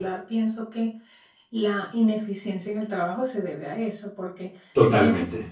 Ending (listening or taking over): listening